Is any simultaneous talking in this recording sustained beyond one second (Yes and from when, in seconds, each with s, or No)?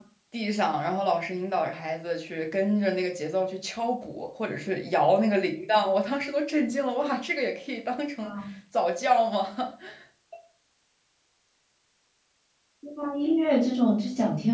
No